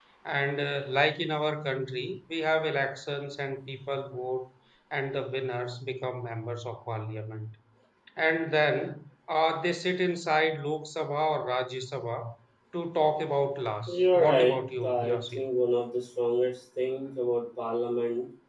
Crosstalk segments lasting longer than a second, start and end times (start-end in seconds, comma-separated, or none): 14.0-15.5